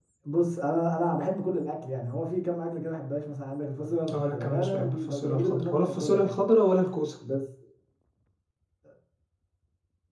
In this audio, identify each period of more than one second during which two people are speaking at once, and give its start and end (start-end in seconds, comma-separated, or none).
4.1-6.3